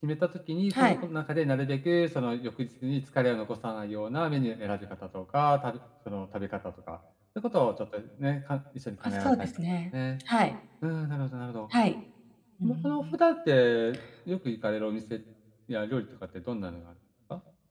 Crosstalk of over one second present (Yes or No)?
No